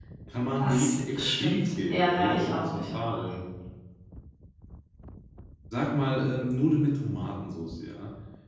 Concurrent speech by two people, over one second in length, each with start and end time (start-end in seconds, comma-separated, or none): 0.6-3.2